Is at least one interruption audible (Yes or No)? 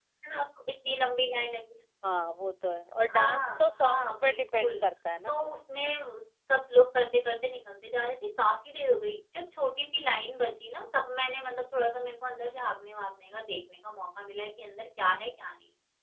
Yes